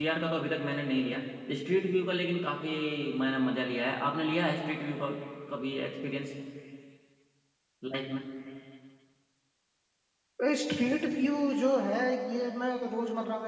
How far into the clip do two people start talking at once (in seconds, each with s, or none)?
none